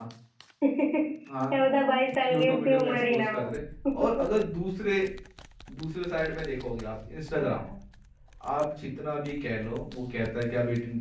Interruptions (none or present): present